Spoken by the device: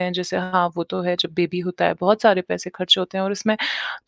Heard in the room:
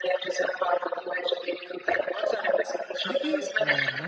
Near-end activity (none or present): present